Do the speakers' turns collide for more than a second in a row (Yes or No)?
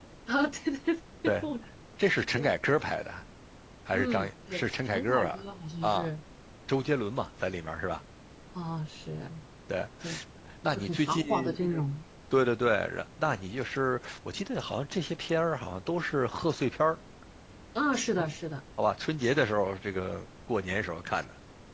Yes